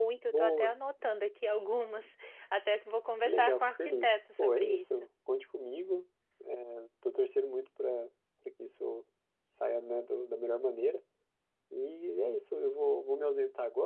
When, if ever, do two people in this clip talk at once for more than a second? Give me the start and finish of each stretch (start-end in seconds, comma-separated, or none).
3.2-4.8